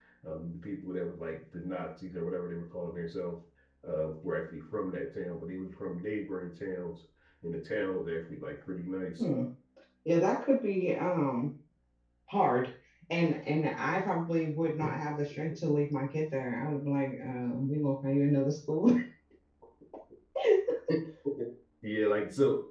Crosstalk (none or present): none